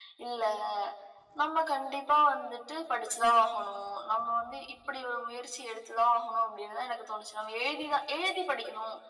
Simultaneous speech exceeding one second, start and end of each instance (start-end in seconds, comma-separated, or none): none